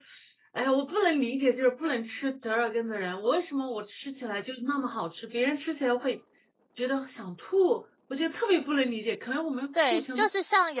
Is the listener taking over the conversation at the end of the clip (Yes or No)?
Yes